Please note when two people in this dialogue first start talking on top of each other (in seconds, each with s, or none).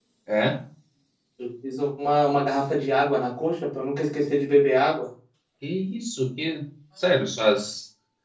none